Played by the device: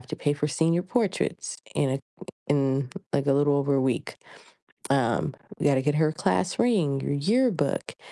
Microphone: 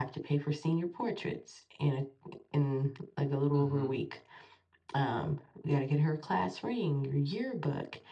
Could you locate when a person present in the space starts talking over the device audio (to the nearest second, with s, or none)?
4 s